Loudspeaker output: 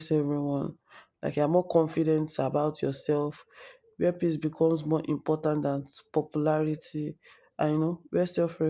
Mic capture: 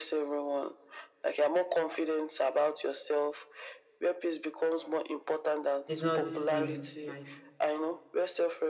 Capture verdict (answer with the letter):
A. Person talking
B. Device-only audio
A